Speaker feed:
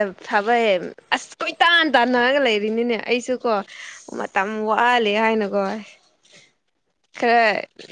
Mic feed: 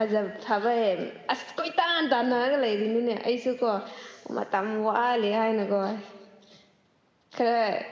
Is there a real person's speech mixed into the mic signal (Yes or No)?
No